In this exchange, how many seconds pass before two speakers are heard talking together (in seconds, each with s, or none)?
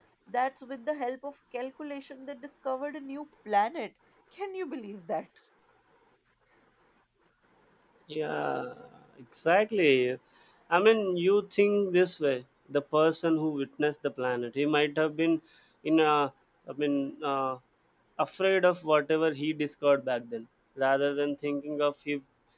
none